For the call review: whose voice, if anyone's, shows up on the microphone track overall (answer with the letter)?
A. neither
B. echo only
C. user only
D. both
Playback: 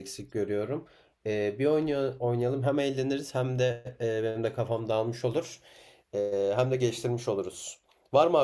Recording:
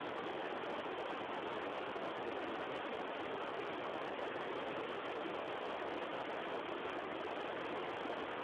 A